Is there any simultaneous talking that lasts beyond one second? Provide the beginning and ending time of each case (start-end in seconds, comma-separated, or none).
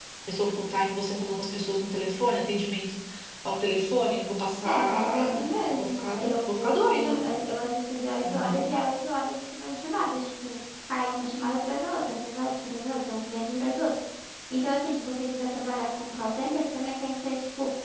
4.6-7.2